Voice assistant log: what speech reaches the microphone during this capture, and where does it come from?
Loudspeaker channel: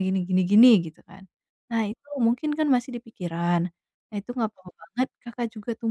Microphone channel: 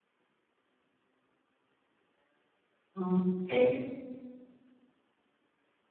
user only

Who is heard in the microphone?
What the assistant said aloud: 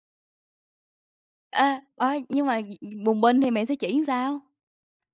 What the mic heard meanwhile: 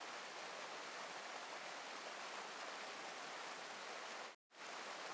neither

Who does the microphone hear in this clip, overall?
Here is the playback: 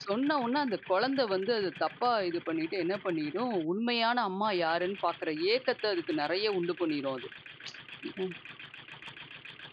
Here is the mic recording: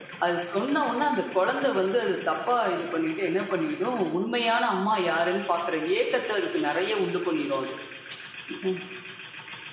echo only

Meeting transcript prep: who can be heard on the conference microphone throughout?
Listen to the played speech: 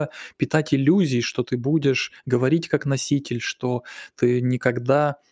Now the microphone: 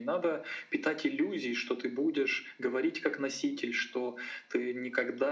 echo only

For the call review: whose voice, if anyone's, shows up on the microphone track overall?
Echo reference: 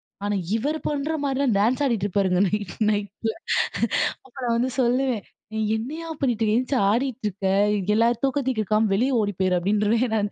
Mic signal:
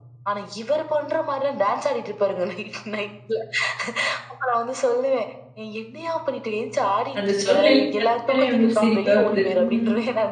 both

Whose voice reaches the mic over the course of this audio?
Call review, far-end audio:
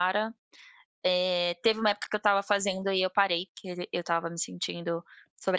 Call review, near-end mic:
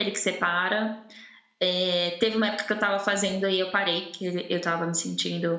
echo only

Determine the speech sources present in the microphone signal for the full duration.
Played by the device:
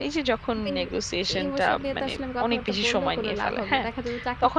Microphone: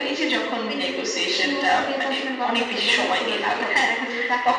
echo only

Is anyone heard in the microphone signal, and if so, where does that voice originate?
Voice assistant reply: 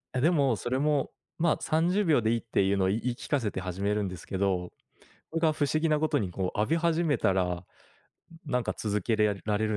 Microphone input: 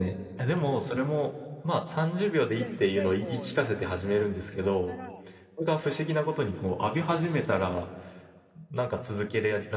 both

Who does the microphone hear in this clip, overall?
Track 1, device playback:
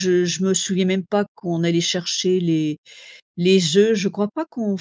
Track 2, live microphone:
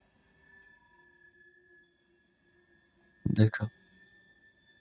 user only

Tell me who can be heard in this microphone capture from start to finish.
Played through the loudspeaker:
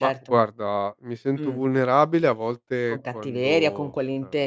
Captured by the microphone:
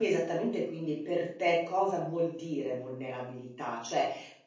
user only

